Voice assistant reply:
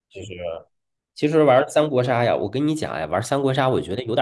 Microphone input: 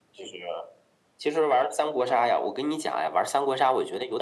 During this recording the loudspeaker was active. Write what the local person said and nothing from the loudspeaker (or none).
none